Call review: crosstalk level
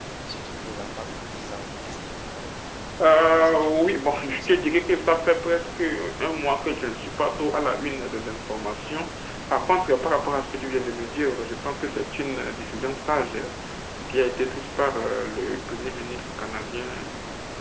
present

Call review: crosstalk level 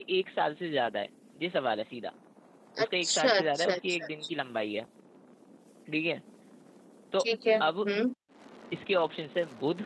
present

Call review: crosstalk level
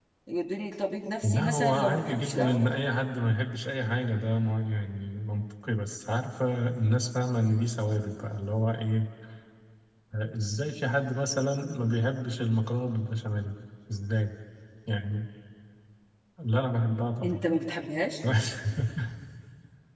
present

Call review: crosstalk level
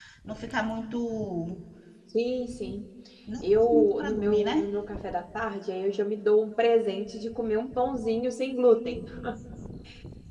present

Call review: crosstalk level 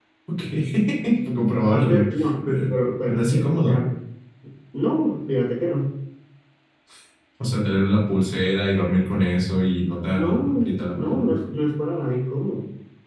present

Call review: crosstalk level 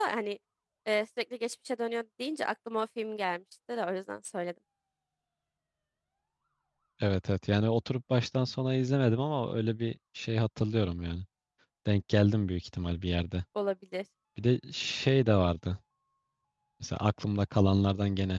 none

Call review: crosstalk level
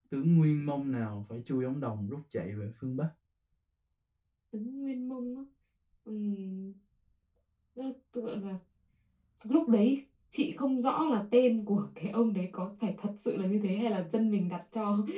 none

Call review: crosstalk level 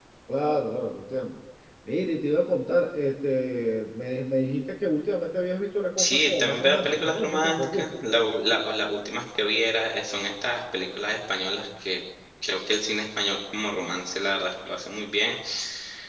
present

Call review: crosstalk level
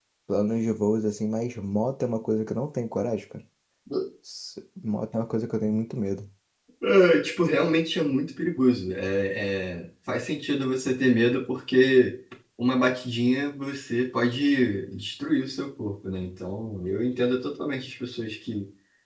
none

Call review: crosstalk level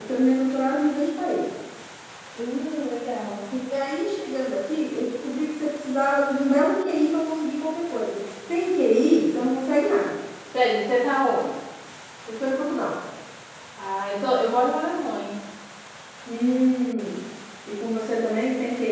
none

